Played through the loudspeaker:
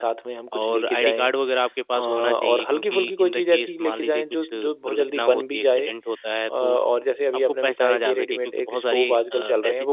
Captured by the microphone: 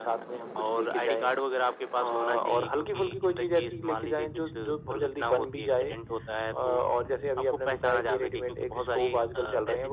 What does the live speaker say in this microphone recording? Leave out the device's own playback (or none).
none